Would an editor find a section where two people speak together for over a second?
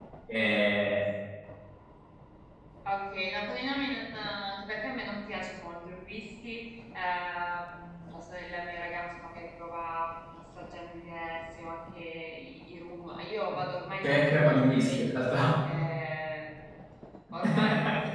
Yes, from 14.0 s

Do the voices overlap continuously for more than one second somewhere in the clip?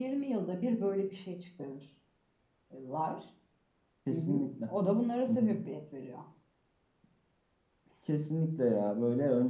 No

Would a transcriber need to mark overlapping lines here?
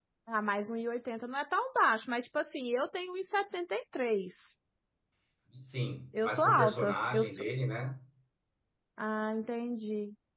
Yes, from 6.2 s

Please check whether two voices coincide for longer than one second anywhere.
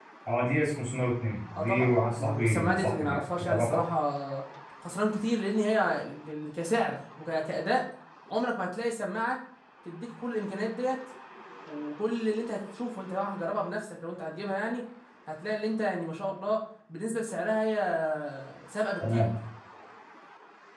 Yes, from 1.6 s

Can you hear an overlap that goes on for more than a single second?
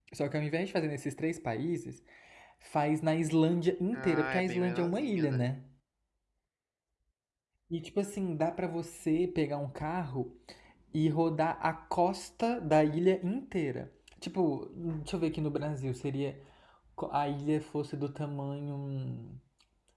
Yes, from 3.9 s

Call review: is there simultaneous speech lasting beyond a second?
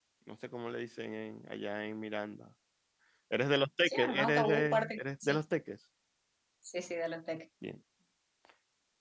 Yes, from 3.9 s

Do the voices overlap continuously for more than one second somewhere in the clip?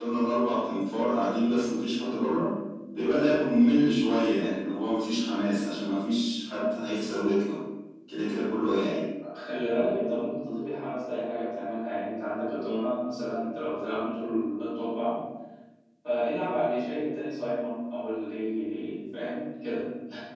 No

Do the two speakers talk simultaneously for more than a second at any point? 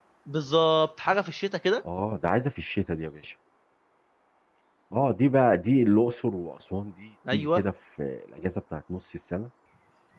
No

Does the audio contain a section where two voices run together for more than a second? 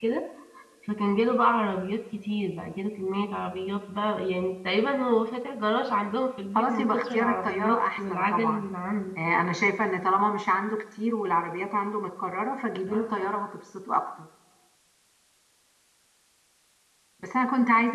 Yes, from 6.5 s

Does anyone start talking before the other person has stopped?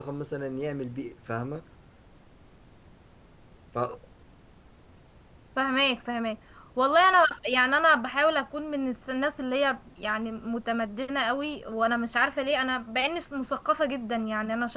No

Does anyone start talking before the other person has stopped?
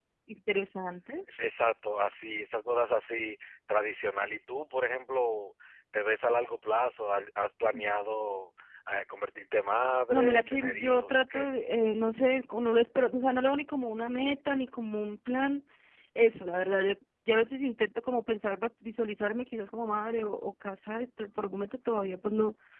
Yes, from 10.1 s

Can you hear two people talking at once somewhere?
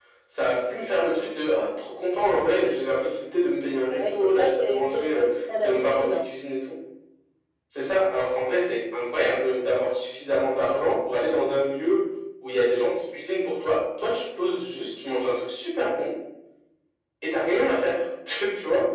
Yes, from 3.9 s

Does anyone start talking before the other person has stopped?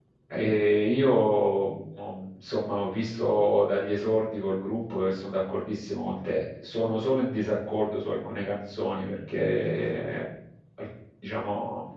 No

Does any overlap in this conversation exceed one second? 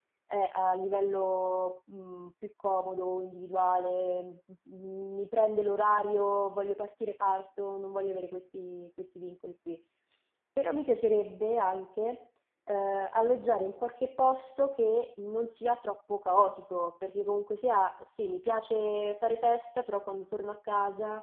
No

